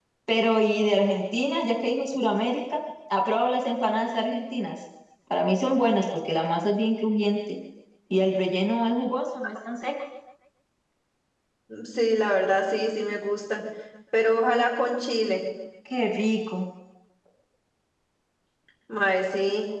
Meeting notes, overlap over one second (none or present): none